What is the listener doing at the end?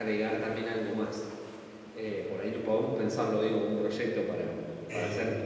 listening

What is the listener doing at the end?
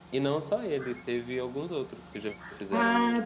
taking over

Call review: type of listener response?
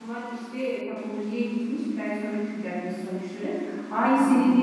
listening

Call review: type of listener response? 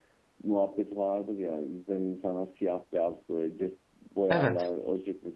listening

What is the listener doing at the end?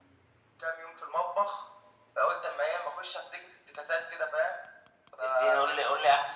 taking over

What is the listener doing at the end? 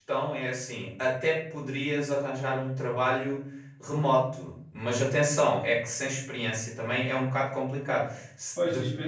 taking over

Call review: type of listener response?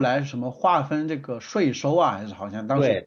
taking over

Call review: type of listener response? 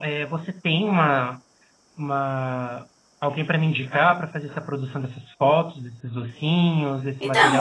taking over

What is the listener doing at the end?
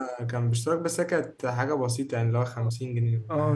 taking over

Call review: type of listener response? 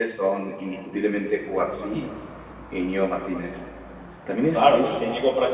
taking over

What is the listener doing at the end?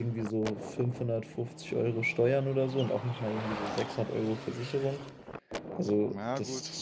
listening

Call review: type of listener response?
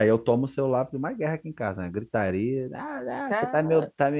listening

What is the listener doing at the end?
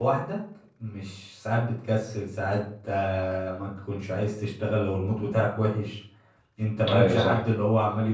listening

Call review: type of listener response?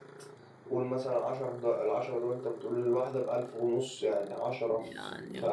listening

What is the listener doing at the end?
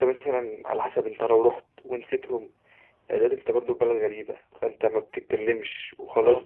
listening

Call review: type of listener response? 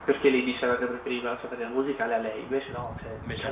listening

